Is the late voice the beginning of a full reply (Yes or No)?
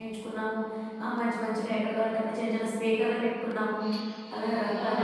Yes